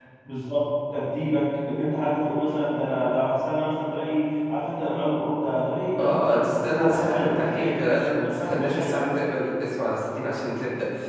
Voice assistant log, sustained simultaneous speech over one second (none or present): present